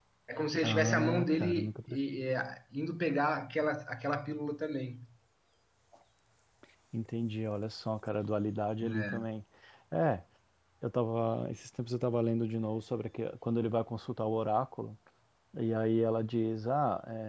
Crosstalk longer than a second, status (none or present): present